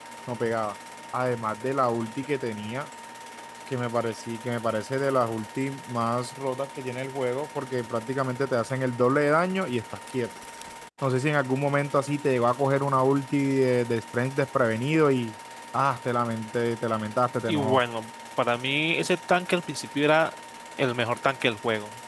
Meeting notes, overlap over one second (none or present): none